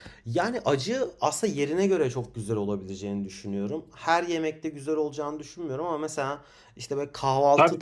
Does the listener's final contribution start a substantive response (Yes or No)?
No